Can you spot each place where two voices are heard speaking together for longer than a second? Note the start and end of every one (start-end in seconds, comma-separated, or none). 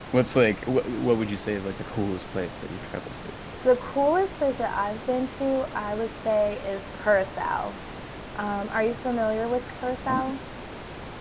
none